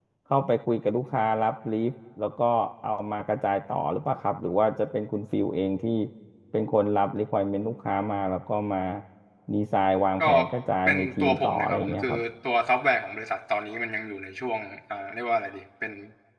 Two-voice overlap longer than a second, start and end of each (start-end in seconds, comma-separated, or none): 10.9-12.2